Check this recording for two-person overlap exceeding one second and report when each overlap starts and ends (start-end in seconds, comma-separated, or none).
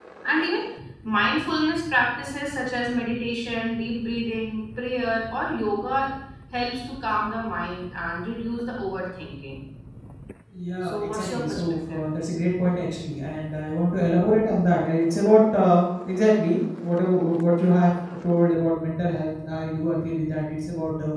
10.8-12.1